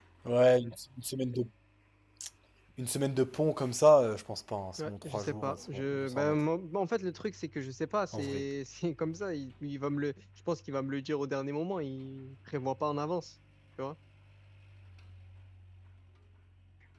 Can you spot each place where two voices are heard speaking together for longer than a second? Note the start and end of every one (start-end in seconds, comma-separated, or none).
4.8-6.4